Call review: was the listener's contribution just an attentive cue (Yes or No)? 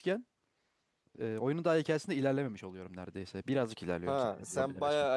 No